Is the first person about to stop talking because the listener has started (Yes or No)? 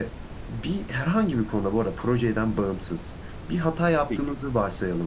No